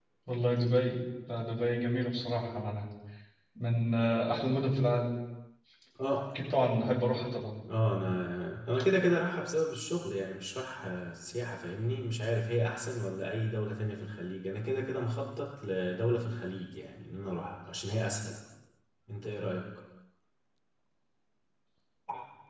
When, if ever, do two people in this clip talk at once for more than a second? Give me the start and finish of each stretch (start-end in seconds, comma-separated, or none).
none